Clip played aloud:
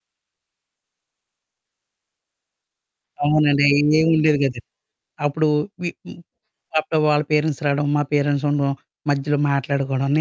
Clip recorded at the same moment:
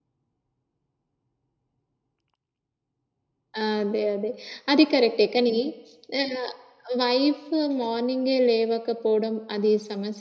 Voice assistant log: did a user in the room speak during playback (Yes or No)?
Yes